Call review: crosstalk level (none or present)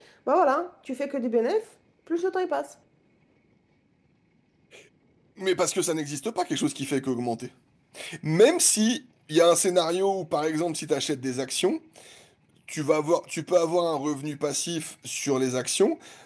none